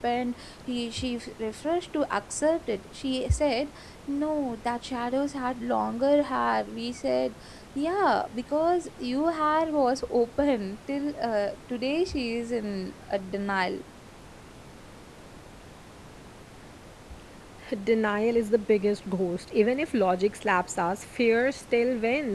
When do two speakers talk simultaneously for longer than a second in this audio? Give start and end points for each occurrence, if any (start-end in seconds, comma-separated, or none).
none